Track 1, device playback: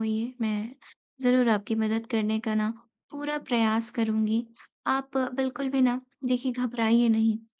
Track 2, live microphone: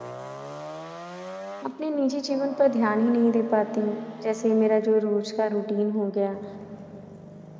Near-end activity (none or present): present